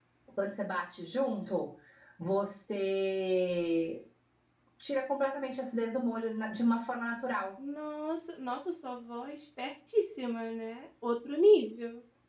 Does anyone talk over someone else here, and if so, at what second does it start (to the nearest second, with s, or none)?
none